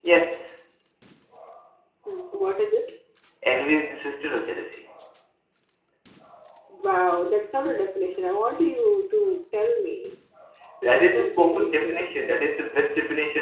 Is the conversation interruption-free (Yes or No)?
No